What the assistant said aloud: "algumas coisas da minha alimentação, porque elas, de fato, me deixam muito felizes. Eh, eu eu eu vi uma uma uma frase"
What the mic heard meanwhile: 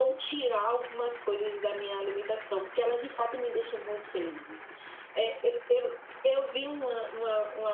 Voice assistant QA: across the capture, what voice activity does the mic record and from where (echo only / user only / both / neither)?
echo only